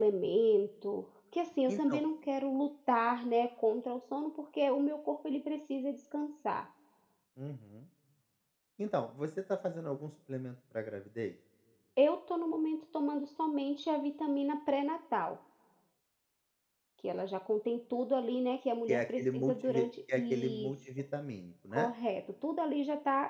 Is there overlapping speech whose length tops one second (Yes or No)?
Yes